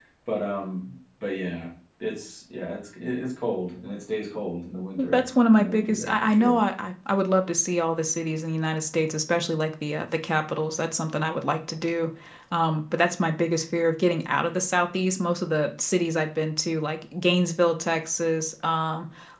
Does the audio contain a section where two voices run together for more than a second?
Yes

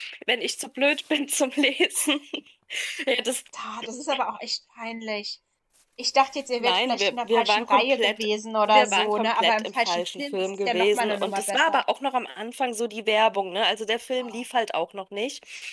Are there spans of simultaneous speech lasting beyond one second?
Yes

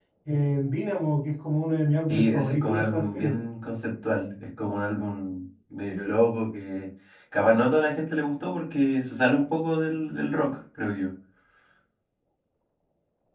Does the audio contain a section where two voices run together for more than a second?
Yes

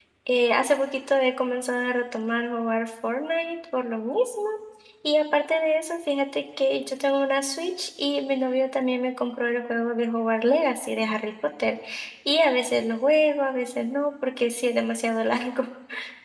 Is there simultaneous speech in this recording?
No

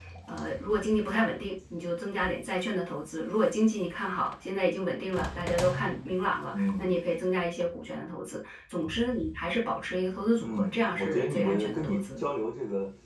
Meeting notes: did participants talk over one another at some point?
Yes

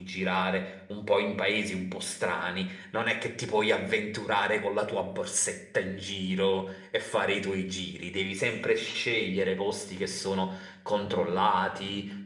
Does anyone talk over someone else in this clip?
No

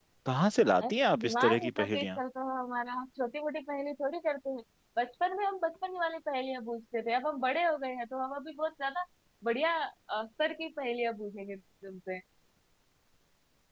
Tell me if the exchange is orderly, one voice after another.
No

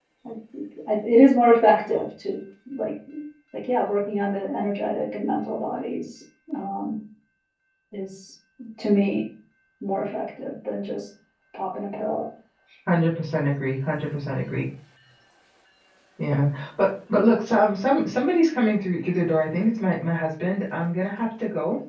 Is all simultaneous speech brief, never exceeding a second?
Yes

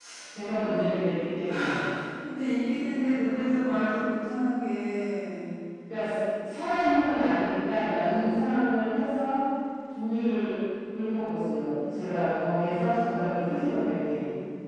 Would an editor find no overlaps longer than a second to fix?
Yes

